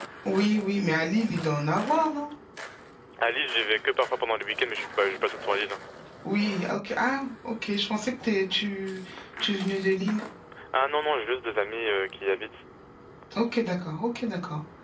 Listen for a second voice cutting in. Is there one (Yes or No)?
No